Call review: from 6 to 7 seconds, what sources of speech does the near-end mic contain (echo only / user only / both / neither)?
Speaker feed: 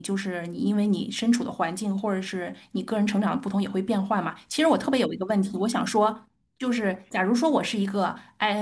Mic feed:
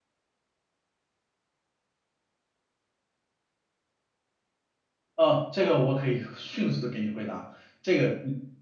user only